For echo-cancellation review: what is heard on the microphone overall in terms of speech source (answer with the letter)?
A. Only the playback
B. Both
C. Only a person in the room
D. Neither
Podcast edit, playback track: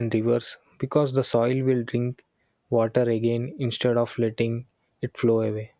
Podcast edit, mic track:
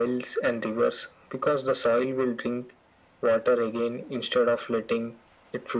A